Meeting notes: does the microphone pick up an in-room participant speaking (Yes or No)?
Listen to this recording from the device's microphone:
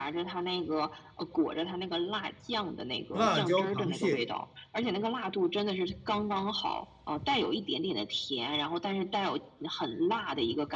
Yes